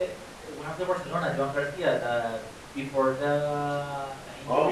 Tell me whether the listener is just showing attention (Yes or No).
Yes